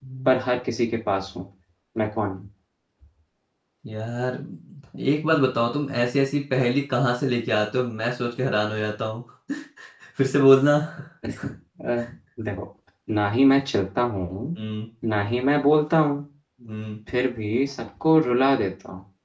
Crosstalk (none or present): none